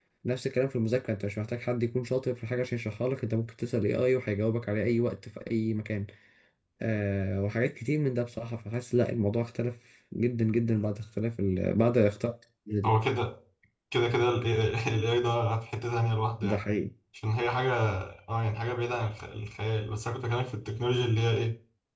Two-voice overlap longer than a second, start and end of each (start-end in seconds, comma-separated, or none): none